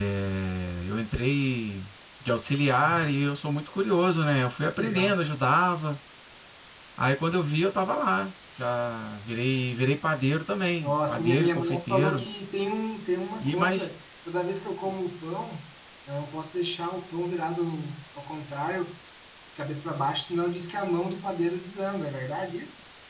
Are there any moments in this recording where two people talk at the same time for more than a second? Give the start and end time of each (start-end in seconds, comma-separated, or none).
10.8-12.2